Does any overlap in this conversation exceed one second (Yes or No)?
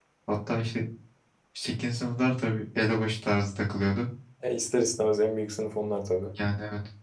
No